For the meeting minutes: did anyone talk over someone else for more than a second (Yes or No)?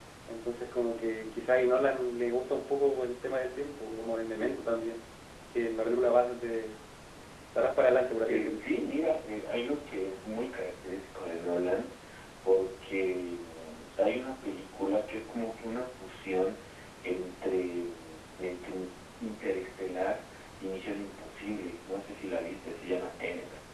No